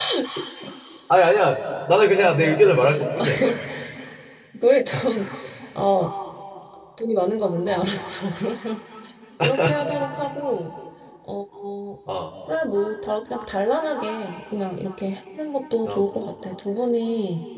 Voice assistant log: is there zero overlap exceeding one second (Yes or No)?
Yes